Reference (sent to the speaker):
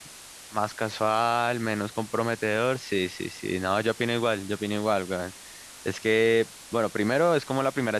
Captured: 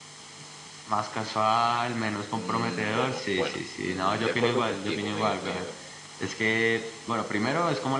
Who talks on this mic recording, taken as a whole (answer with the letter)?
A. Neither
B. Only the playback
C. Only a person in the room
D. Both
D